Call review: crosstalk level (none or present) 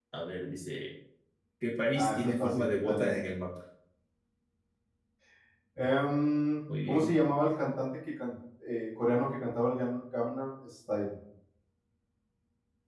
present